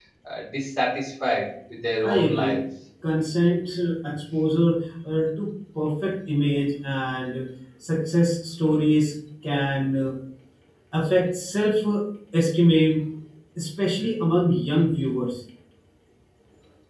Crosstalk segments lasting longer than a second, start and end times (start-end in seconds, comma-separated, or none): none